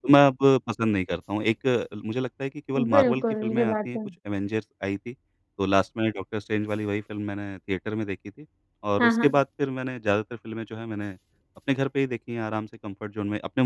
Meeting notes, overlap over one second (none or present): present